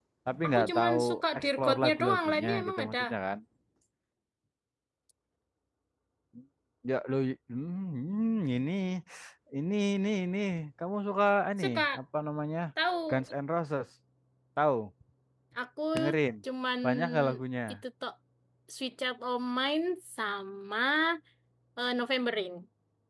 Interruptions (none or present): present